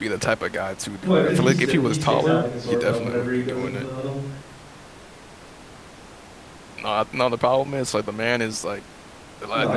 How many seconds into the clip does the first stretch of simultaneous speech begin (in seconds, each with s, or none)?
1.0 s